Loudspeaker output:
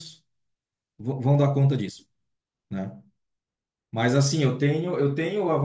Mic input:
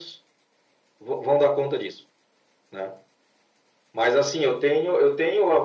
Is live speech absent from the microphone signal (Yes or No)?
Yes